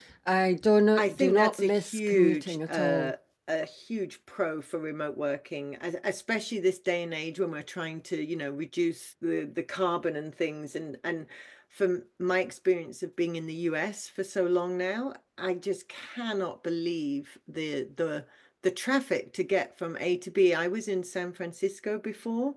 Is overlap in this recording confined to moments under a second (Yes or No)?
No